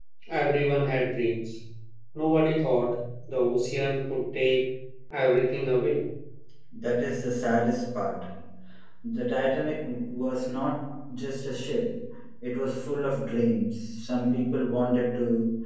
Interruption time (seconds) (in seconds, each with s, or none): none